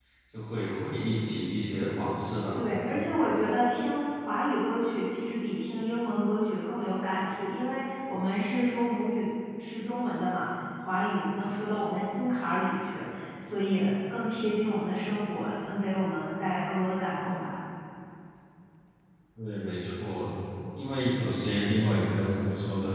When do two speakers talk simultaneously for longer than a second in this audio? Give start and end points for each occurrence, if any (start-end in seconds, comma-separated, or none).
none